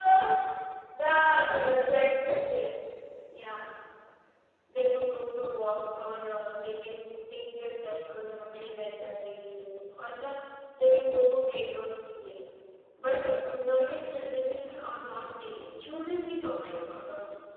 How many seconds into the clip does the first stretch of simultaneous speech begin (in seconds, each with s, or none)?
none